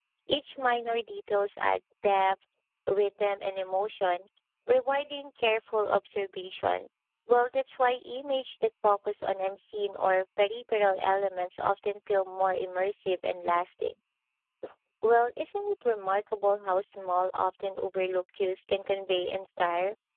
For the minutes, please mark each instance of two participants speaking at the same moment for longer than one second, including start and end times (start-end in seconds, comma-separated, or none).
none